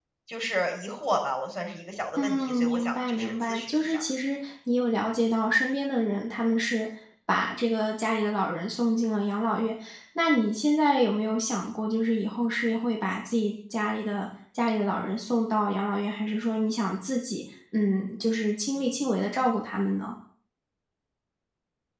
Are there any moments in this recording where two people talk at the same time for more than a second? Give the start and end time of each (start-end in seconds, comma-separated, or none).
2.2-4.0